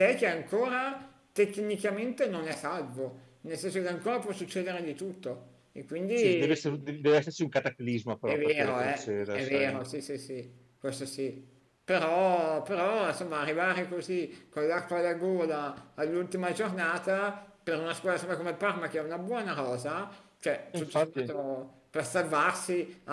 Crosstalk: present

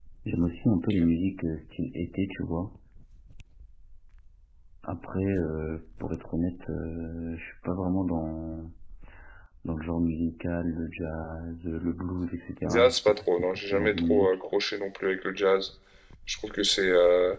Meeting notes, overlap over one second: present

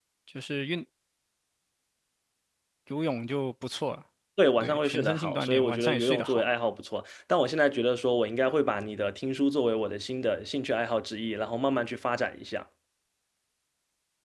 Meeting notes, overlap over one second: present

